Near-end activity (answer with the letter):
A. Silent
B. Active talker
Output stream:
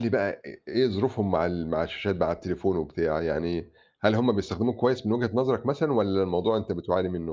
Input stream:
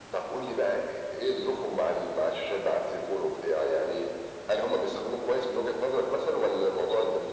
A